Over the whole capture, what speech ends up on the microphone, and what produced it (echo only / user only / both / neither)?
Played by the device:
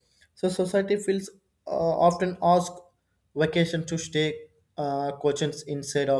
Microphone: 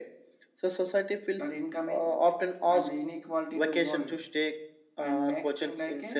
both